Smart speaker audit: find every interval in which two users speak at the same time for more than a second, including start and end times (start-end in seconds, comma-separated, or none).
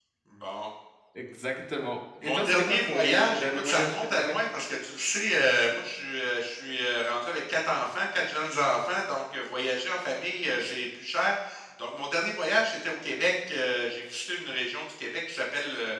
2.2-4.3